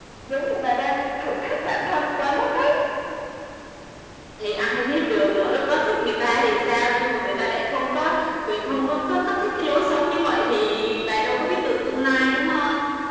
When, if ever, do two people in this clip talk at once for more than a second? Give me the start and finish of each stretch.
none

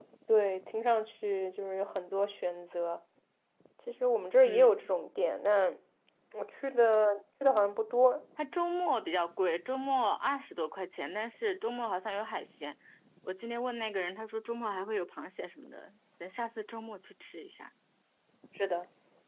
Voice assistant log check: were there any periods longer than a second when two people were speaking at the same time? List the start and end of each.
none

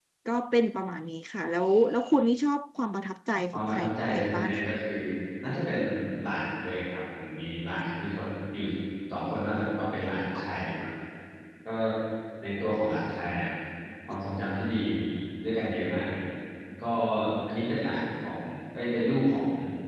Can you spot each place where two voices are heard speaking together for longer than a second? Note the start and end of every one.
3.5-4.7

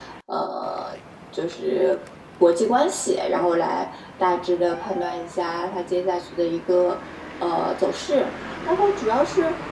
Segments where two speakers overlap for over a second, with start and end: none

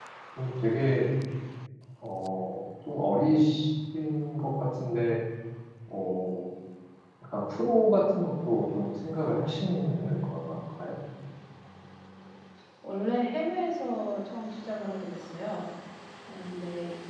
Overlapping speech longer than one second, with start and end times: none

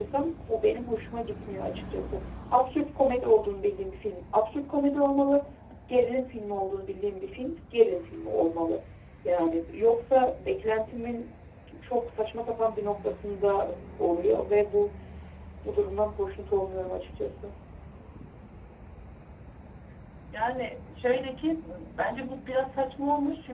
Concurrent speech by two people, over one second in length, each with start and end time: none

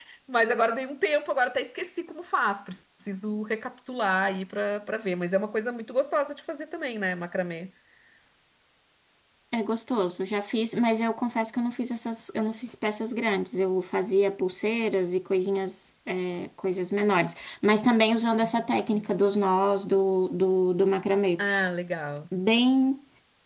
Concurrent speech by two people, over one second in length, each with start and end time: none

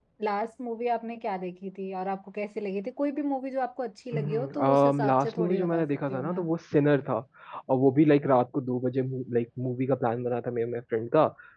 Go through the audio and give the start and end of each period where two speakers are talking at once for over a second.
4.1-6.4

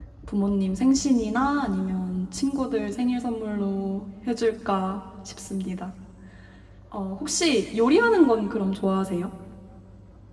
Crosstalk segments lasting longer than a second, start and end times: none

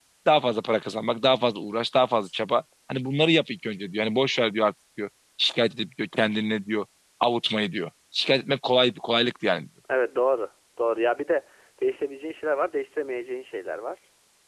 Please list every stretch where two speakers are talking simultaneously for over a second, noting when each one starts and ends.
none

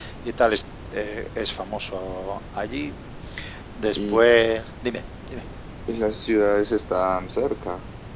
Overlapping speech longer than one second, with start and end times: none

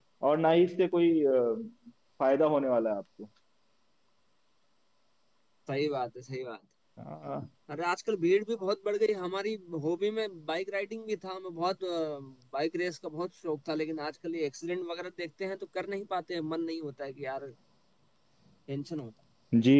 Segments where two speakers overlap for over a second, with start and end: none

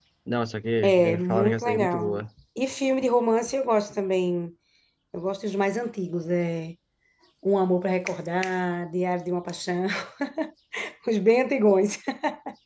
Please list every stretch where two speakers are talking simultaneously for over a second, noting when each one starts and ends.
0.8-2.2

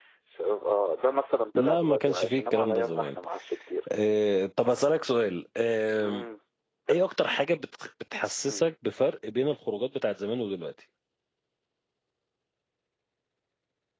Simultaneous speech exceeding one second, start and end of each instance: 1.6-3.2

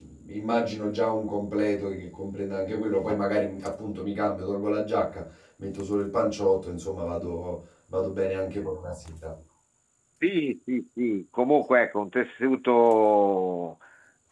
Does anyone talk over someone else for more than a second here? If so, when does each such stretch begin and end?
none

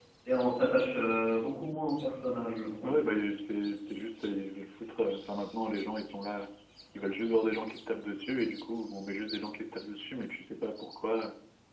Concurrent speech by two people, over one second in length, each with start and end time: none

